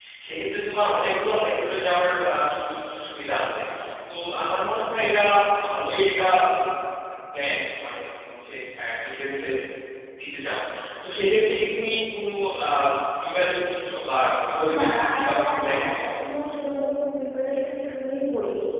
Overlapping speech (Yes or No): Yes